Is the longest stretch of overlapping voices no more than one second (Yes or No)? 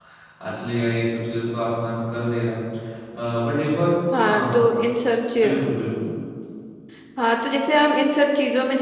Yes